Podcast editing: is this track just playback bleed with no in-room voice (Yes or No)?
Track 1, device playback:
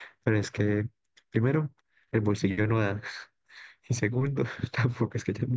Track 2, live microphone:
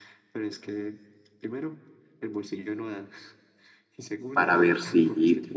No